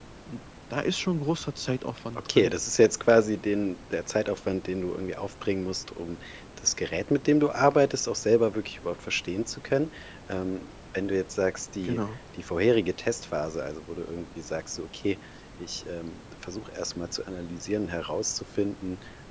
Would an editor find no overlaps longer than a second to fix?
Yes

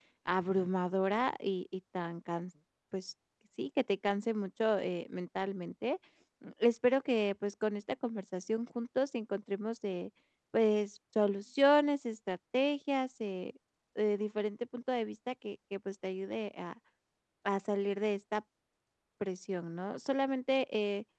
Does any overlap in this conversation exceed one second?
No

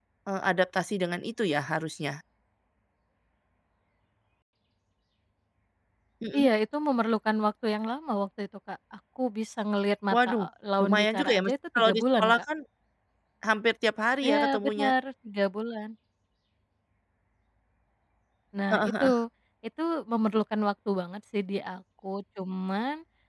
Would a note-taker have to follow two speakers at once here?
Yes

